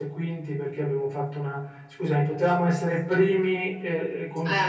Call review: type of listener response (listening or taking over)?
listening